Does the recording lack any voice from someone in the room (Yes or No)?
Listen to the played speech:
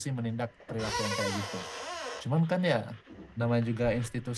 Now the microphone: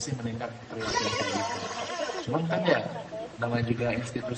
No